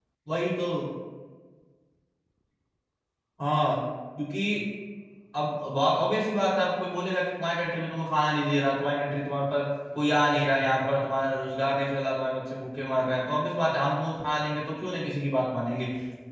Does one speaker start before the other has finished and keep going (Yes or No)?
No